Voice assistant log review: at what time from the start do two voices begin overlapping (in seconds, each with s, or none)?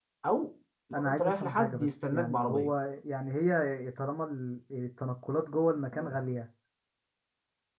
0.9 s